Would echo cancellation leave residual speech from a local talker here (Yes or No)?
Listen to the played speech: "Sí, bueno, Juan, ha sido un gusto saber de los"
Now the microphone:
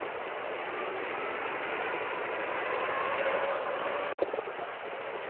No